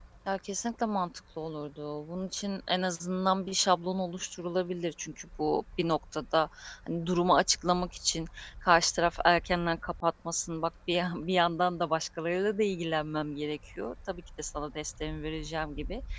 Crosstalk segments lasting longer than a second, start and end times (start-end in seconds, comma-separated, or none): none